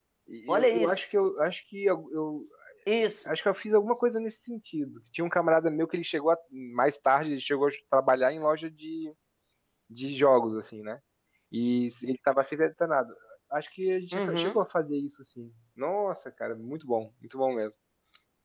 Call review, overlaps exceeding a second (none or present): none